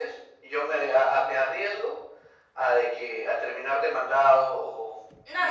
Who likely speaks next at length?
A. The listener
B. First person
A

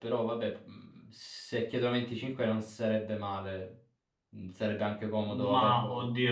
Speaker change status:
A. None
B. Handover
B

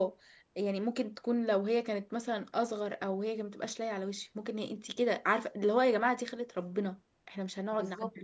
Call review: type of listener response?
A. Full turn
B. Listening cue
A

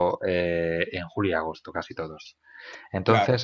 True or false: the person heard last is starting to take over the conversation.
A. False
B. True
A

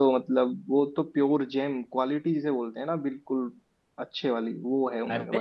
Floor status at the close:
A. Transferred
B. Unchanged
A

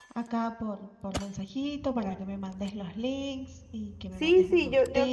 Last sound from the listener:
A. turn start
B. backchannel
A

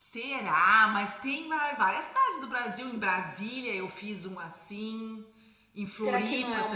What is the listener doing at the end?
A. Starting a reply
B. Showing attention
A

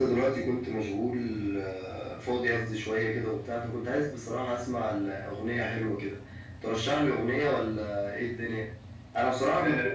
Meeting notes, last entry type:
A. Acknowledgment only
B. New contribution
B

